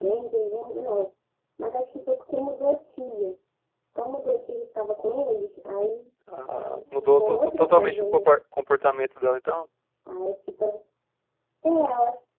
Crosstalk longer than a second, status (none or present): present